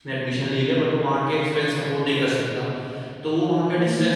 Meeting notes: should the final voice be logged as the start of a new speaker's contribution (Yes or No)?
No